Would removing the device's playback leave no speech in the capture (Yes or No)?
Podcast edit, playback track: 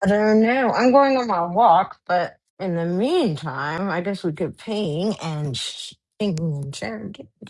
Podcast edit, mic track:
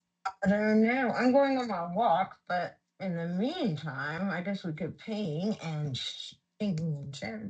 Yes